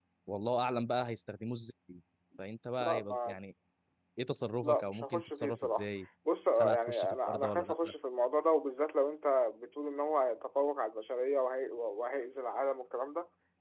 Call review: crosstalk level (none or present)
present